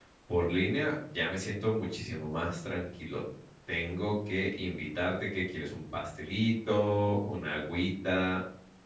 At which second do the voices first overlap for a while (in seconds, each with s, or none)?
none